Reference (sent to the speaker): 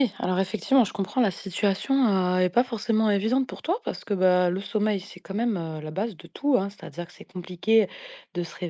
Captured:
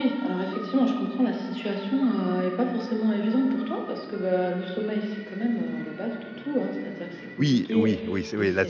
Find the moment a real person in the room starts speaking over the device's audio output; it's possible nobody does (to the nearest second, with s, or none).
7 s